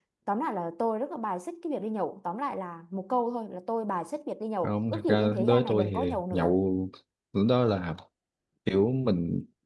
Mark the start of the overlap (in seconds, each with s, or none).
4.6 s